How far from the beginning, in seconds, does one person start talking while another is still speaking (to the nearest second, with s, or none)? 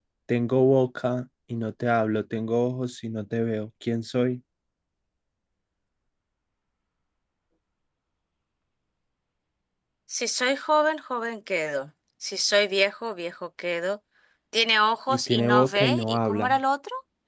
15 s